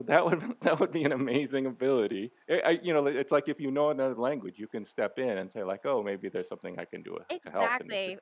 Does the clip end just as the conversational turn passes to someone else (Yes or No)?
Yes